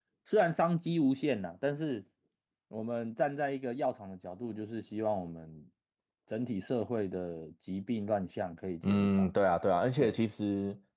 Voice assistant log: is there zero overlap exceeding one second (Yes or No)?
Yes